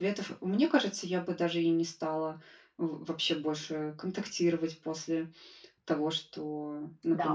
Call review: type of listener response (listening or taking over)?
taking over